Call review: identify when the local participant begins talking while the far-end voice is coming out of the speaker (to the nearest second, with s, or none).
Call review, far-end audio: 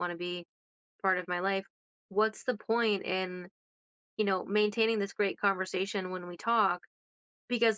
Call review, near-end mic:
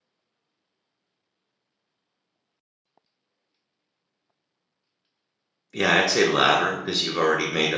6 s